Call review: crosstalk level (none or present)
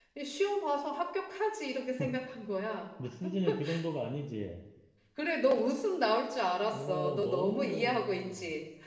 present